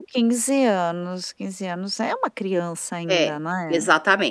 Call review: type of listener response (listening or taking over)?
taking over